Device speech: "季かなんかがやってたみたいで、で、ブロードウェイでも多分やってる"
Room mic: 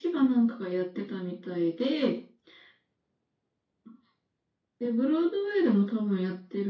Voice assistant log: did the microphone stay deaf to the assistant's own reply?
No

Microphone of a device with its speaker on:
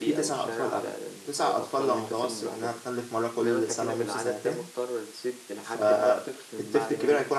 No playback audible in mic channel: No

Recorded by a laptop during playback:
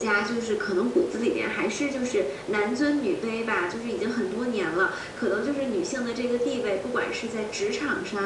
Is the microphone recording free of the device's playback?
No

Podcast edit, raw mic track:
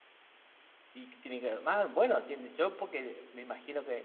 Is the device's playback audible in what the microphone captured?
No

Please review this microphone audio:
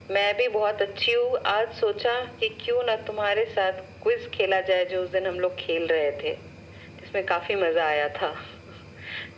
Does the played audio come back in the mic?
Yes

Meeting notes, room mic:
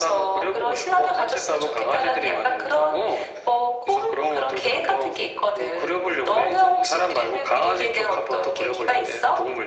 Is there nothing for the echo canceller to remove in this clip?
No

